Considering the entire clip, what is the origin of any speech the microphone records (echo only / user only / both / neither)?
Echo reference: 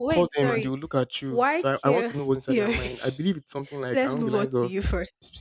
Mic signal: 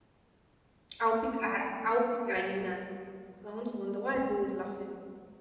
user only